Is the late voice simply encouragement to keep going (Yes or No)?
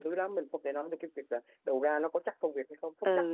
No